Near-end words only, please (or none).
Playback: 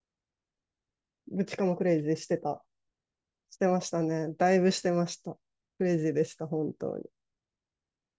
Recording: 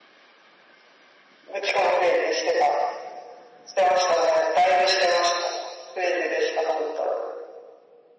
none